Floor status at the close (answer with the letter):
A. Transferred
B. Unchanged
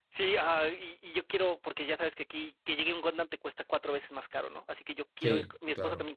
B